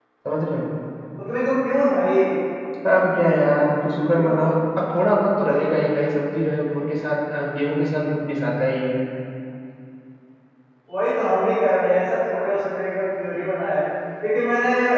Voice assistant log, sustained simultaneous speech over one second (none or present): none